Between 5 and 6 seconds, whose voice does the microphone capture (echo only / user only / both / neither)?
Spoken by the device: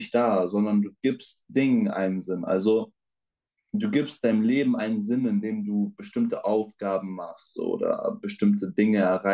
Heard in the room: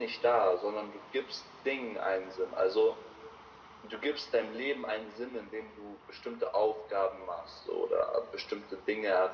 echo only